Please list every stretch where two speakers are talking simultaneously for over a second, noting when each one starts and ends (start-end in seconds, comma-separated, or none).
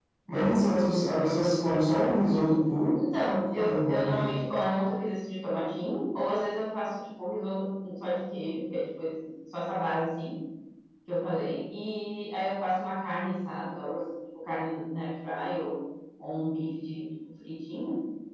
2.9-4.3